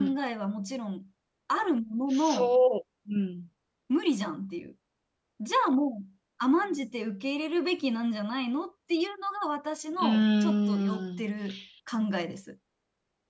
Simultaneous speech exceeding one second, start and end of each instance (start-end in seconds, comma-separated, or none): 10.0-11.2